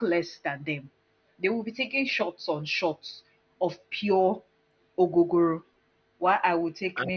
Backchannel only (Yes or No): Yes